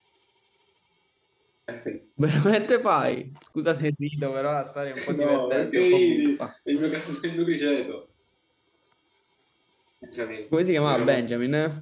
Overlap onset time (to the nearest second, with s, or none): 5 s